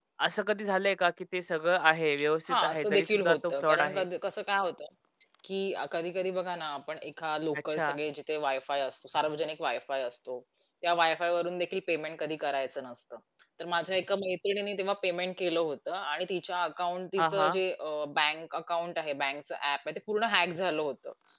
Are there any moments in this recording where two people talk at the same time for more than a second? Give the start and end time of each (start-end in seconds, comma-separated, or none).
2.5-4.0